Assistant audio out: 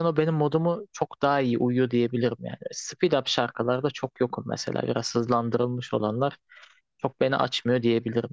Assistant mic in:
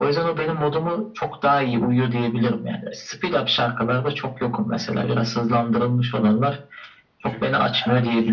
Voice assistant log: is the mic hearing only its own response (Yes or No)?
No